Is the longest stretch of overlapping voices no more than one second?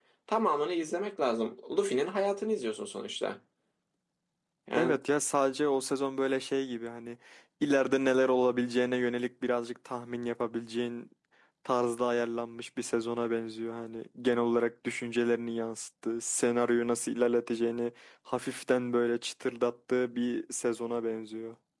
Yes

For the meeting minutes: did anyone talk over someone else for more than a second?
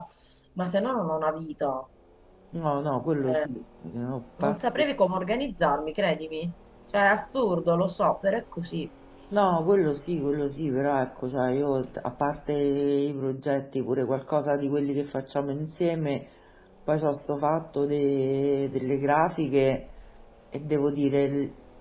No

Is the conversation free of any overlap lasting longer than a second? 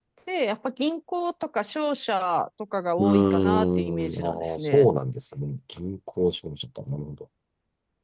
No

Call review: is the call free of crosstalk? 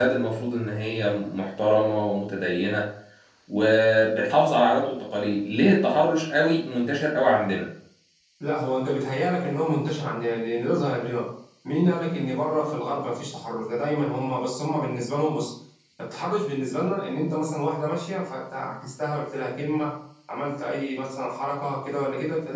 Yes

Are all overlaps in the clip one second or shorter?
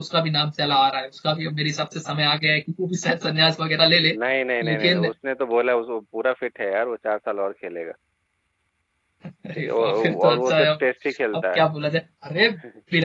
No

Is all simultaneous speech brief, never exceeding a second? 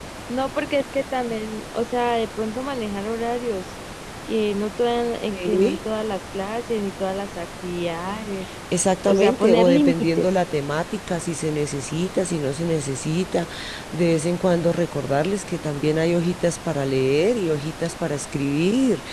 No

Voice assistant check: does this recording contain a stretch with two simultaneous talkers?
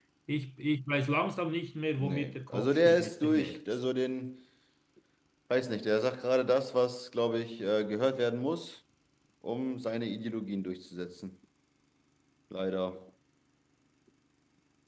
Yes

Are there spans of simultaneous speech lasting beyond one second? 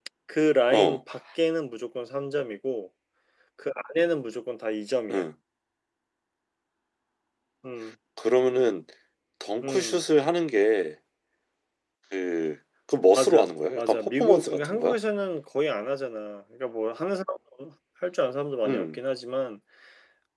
Yes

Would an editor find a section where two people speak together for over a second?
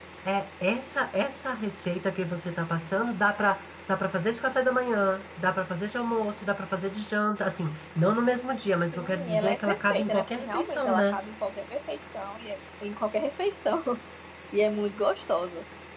Yes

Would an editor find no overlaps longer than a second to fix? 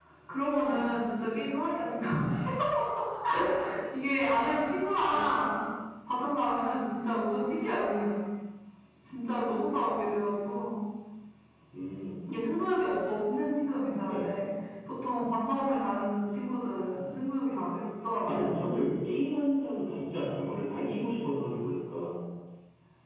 Yes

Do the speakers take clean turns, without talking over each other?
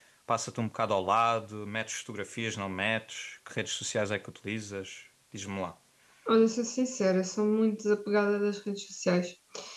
Yes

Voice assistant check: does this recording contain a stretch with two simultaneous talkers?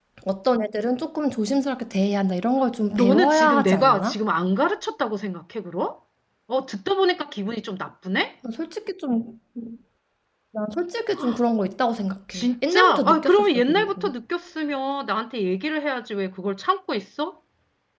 Yes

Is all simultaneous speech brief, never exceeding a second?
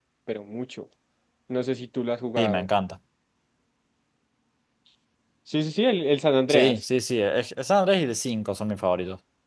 Yes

